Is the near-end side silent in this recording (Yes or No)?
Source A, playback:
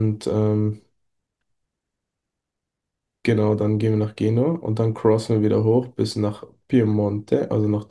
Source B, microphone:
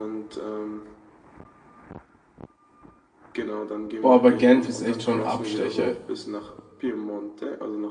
No